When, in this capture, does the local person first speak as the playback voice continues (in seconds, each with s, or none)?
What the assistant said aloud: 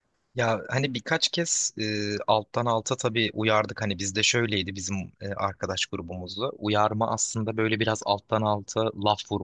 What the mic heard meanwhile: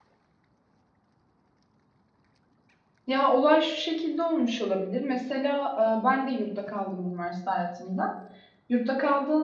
3.1 s